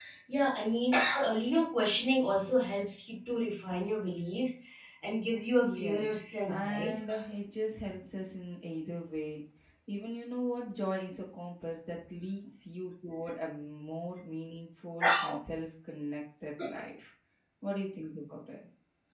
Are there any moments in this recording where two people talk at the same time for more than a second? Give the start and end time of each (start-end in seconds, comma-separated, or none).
5.6-6.9